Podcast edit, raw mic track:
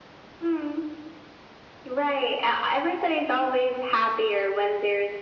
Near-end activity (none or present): none